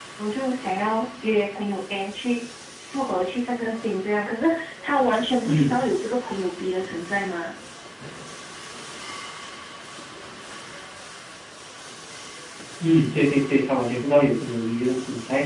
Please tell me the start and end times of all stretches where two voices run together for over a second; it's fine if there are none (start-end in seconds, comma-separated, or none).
none